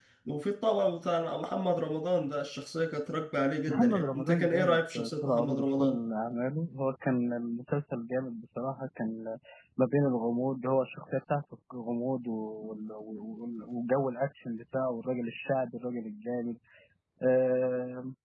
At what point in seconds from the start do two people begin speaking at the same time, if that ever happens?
3.7 s

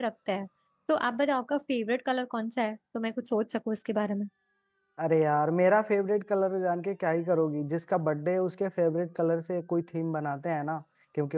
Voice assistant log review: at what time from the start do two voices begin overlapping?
none

